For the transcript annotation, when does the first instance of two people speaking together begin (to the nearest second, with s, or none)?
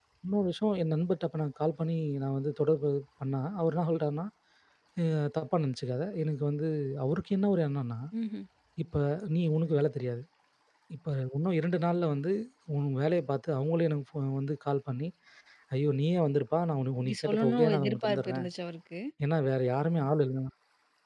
17 s